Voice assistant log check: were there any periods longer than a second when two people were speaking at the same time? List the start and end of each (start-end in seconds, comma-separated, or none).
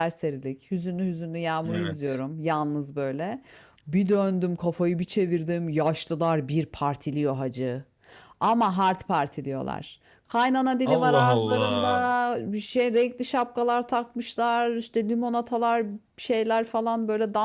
10.8-12.1